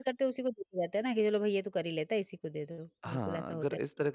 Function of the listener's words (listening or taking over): taking over